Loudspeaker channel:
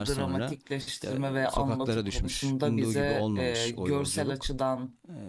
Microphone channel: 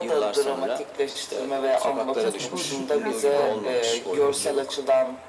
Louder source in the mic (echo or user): echo